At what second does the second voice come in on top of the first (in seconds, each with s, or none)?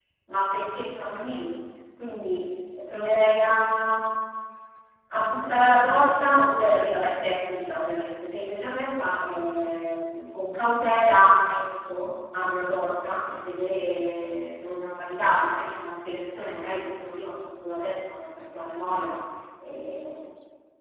none